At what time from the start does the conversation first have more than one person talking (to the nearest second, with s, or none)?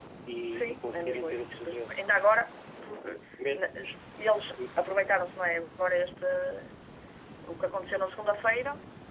1 s